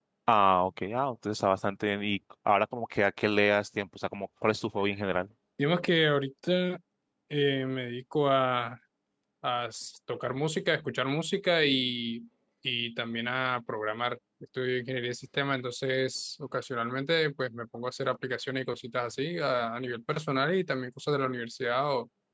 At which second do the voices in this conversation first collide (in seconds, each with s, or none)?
none